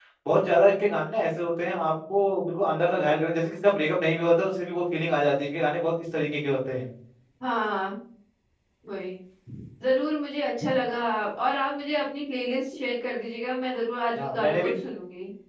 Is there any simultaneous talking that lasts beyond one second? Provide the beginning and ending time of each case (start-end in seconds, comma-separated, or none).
none